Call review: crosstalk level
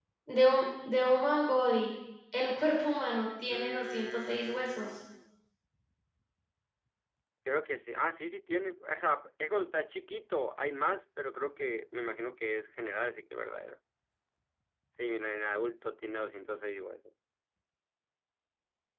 present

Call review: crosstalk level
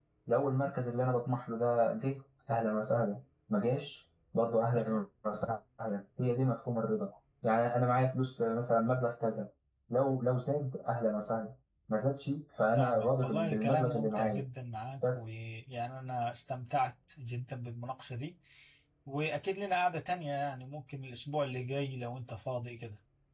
present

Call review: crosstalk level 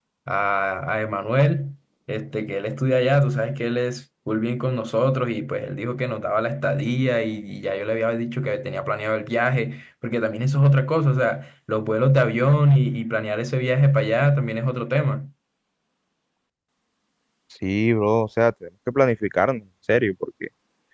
none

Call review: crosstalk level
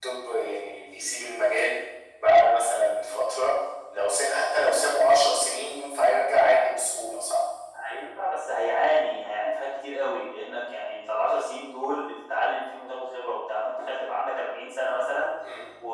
none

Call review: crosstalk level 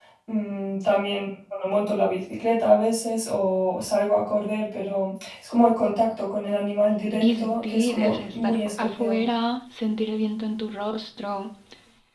present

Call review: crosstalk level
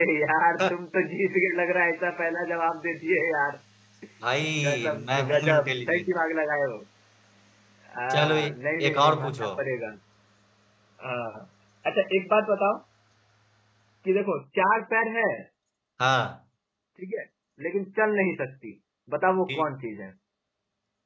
present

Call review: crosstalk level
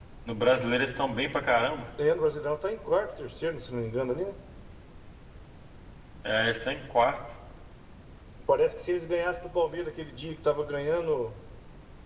none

